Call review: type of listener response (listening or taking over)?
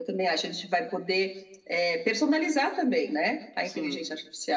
listening